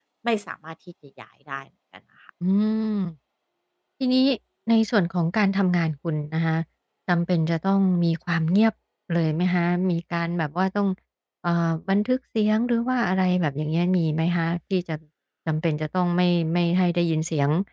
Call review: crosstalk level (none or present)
none